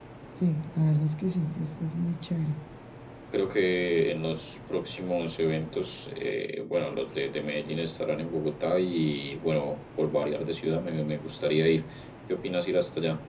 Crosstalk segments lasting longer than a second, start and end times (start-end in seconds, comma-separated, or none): none